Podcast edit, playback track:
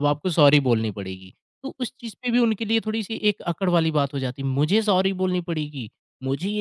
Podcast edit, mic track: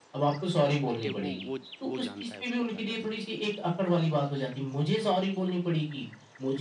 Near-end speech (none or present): present